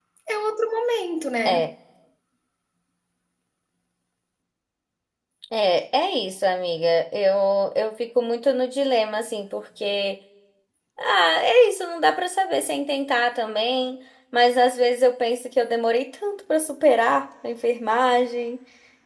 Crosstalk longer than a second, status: none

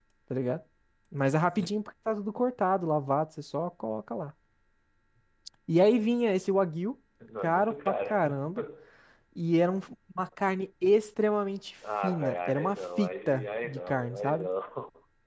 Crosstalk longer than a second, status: present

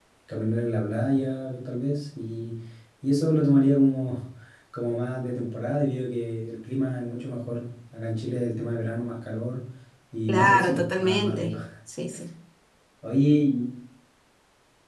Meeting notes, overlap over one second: present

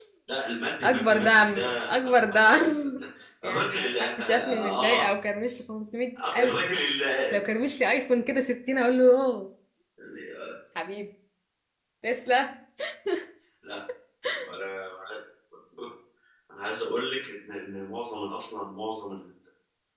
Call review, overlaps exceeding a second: present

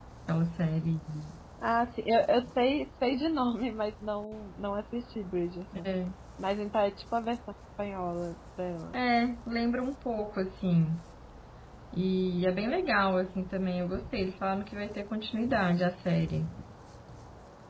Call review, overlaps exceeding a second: none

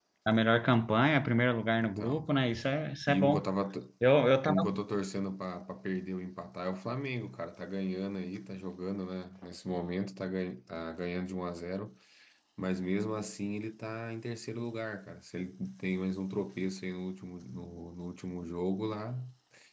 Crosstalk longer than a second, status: none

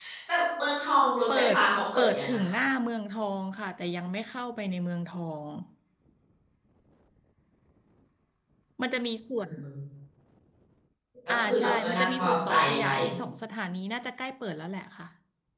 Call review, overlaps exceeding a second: present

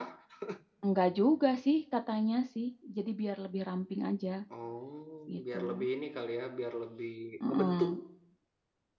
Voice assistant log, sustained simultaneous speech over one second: none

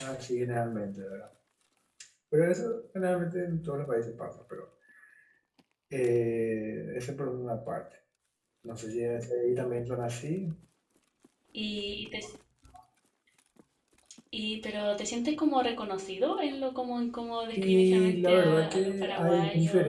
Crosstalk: present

